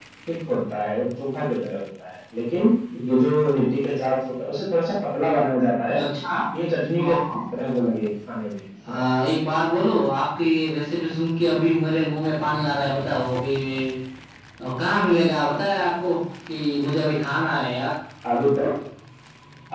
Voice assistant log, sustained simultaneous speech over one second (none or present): none